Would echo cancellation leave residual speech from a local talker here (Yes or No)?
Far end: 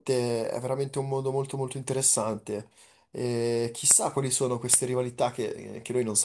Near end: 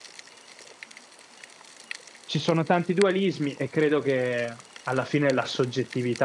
Yes